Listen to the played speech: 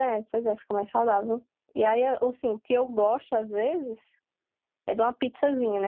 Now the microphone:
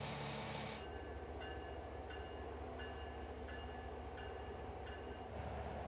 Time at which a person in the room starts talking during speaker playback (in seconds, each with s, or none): none